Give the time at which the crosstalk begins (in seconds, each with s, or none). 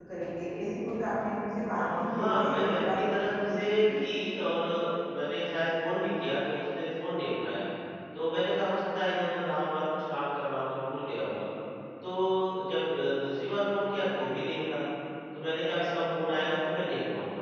1.7 s